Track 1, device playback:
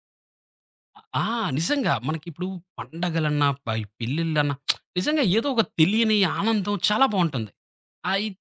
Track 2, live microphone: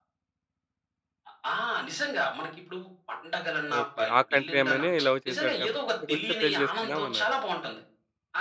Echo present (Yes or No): Yes